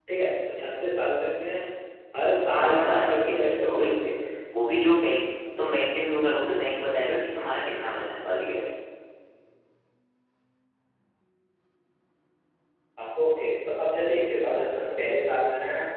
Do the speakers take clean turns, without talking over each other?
No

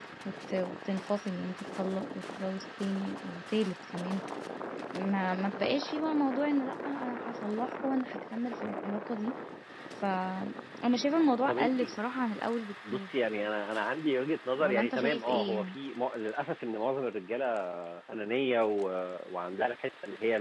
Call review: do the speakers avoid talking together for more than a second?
No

